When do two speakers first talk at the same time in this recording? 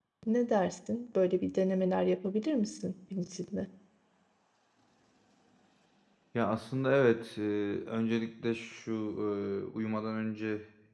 none

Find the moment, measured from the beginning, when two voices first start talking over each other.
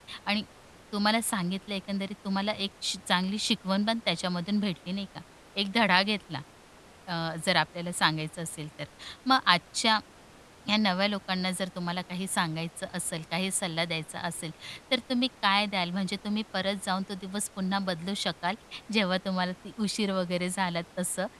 none

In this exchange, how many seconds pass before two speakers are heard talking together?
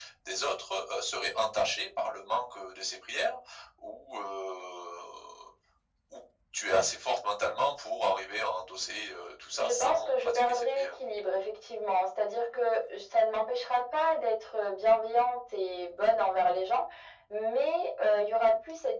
10 s

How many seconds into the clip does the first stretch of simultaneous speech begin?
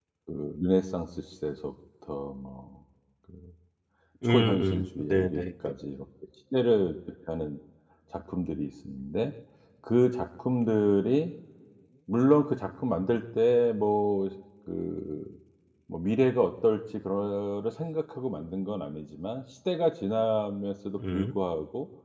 4 s

